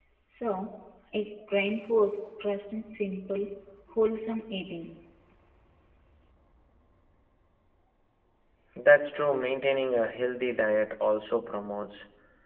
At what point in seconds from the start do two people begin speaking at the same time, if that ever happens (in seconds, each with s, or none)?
none